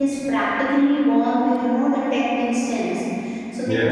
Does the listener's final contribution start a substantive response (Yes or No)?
No